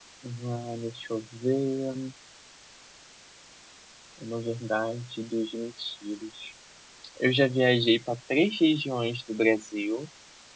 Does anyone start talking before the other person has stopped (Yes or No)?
No